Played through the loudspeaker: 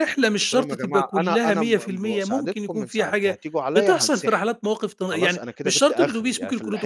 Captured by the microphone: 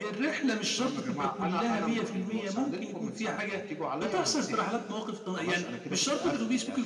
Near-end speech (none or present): none